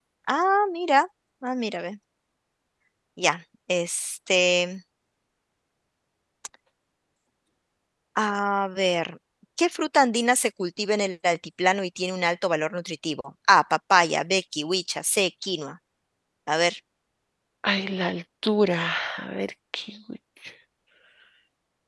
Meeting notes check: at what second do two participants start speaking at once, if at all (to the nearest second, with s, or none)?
none